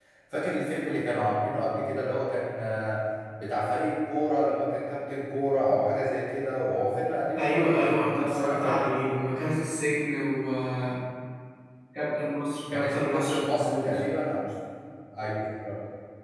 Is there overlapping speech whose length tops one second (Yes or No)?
Yes